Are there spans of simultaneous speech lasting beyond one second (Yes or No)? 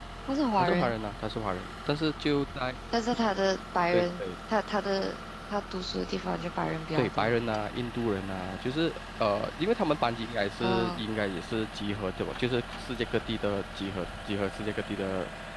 No